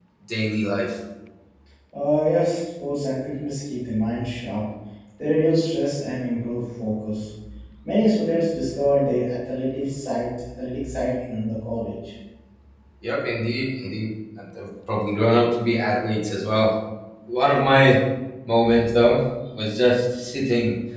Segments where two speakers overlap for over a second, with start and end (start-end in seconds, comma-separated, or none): none